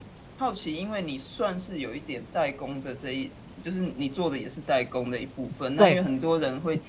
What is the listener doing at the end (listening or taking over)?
listening